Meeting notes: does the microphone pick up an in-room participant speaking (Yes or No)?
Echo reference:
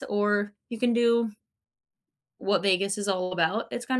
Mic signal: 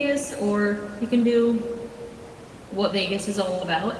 No